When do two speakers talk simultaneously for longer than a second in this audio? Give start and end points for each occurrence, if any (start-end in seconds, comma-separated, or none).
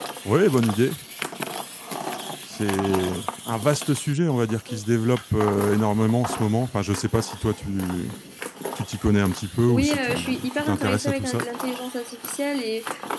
9.7-11.4